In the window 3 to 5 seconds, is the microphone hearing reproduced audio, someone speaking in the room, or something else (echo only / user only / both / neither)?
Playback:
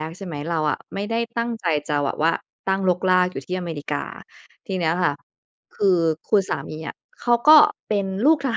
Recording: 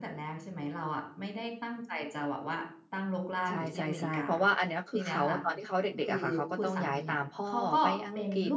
both